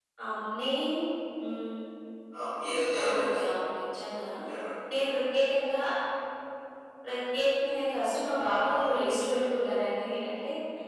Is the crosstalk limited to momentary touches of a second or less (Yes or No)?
Yes